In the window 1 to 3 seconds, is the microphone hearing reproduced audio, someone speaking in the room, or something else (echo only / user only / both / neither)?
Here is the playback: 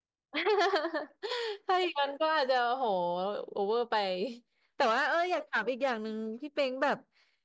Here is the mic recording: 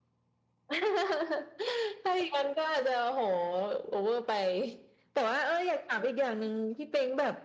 echo only